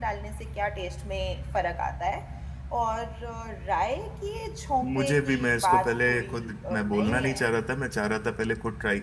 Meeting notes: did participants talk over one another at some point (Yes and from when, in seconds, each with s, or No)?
Yes, from 4.8 s